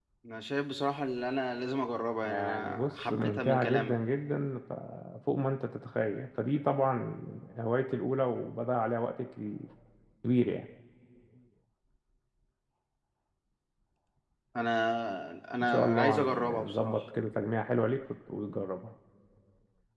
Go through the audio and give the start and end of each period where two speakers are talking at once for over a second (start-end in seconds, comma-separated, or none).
2.2-4.0, 15.6-17.0